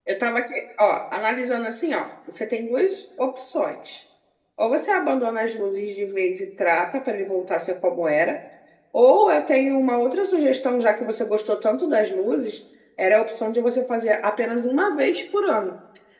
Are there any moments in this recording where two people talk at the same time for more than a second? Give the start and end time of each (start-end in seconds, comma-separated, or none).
none